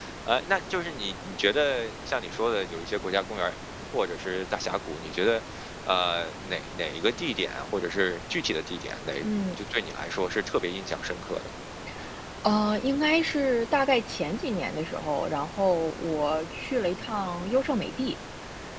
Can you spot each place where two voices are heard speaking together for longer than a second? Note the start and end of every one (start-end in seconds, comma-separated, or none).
none